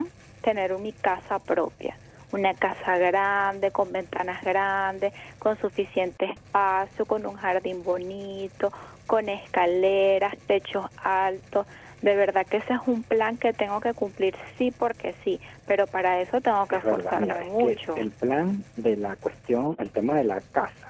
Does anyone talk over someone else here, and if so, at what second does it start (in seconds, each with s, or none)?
16.7 s